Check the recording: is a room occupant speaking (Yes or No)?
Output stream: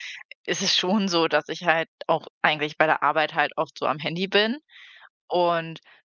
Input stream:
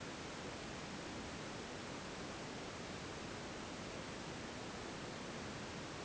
No